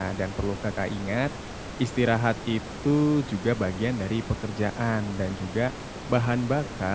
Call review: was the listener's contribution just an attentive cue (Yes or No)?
Yes